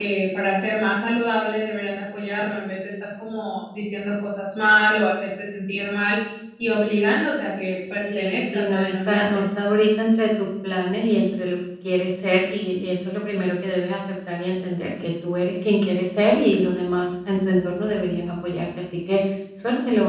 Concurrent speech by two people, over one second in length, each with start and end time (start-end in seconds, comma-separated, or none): 8.1-9.4